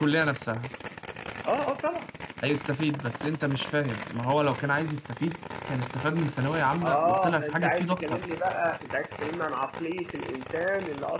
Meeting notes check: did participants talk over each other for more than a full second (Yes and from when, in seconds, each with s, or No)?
Yes, from 6.8 s